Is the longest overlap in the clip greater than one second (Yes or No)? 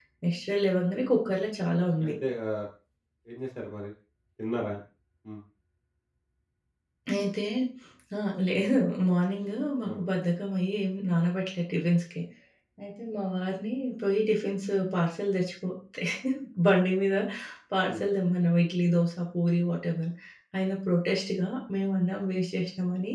No